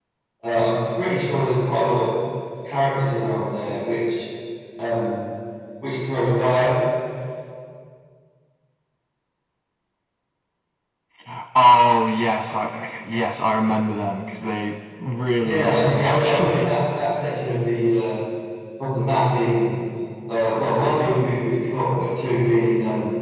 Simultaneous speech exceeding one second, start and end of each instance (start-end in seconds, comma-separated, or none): 15.4-16.7